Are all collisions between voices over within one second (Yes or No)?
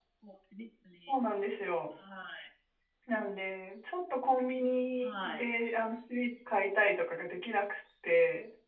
Yes